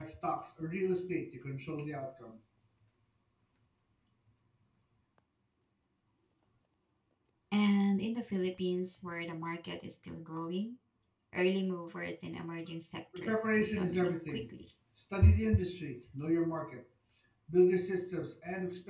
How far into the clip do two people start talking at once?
13.2 s

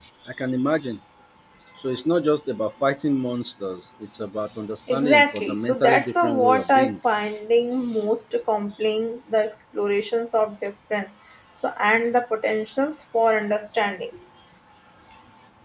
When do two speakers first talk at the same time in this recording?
4.9 s

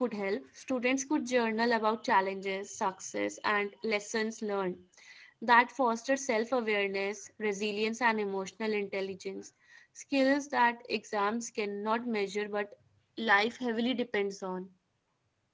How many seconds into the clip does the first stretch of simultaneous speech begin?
none

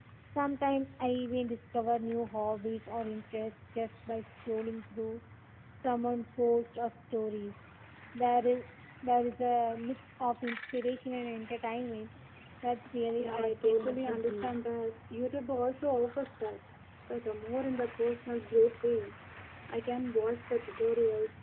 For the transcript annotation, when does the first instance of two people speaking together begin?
13.2 s

